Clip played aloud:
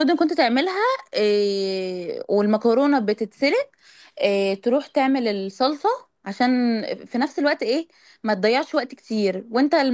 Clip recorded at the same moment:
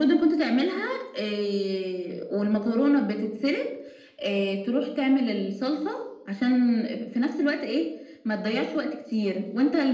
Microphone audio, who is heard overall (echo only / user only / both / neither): echo only